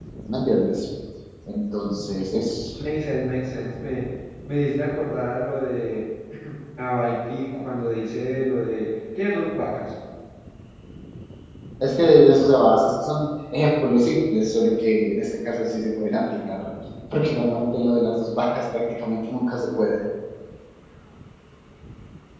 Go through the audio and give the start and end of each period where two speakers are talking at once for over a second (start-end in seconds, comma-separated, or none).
none